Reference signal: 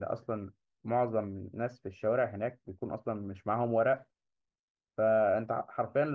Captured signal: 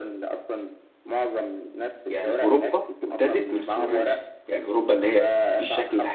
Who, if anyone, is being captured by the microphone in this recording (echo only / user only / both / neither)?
both